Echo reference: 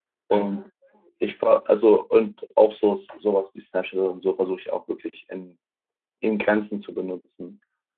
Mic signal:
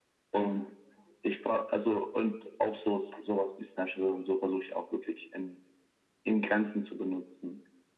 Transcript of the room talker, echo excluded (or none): none